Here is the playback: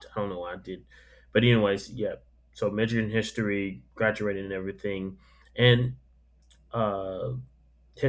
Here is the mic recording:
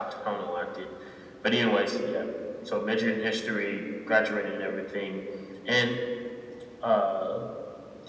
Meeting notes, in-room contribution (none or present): none